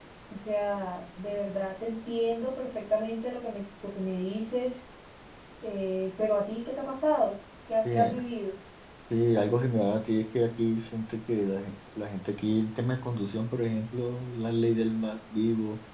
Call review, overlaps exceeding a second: none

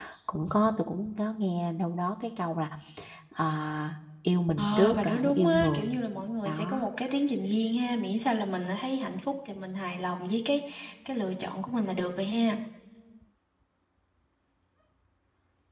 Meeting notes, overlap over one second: present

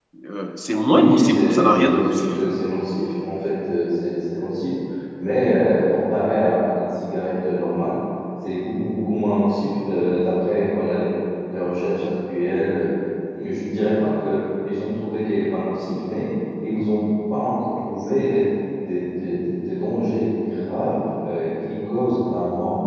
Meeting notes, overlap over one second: present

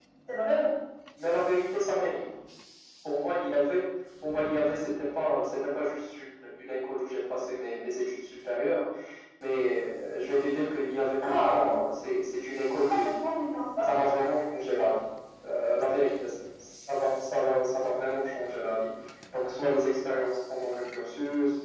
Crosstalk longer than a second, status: none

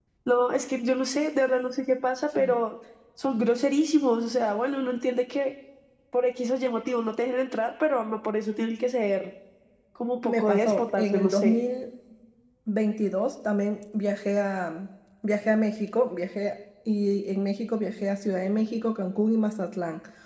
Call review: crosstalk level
present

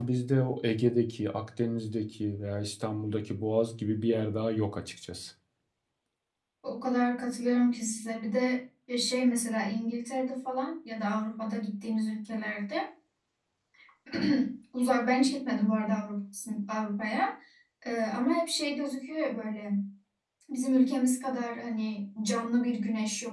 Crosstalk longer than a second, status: none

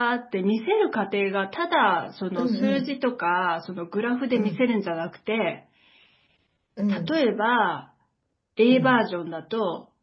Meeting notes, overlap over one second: none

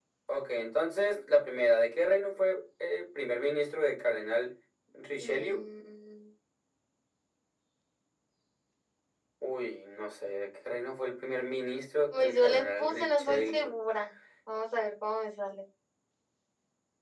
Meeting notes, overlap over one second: present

